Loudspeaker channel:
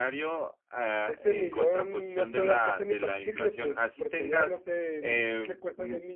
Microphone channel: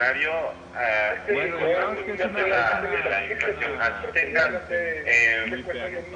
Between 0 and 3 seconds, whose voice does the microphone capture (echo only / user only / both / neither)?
both